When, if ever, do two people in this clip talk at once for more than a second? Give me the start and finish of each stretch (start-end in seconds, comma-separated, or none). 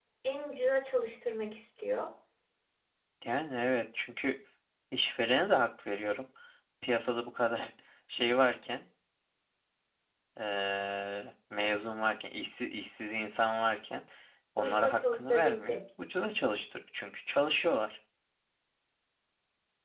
14.6-15.8